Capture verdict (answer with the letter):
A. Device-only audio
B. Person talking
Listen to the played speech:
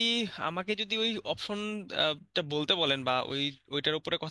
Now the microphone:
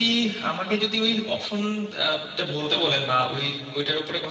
A